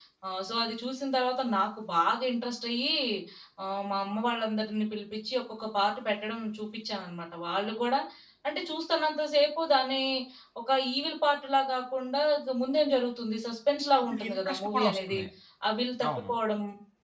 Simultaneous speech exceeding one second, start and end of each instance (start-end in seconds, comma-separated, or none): 14.0-15.2